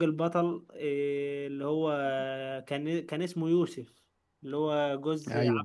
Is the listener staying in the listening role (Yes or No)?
No